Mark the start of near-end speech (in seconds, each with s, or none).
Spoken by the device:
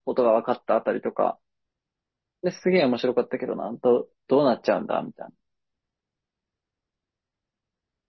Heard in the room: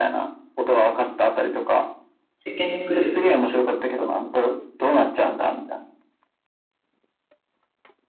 2.4 s